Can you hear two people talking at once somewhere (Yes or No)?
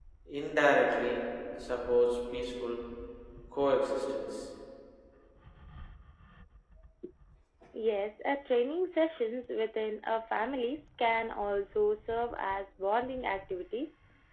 No